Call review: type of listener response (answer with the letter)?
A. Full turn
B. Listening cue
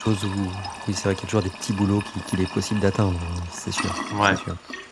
A